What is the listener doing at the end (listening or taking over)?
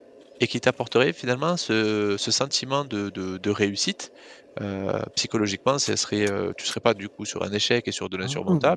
listening